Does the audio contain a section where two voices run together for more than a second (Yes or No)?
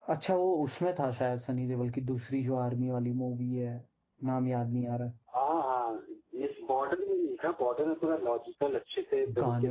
No